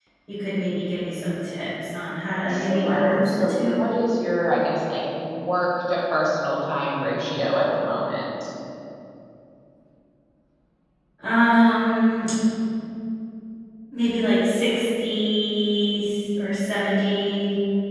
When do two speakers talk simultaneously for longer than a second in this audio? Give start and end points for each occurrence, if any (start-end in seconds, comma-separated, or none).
2.5-3.8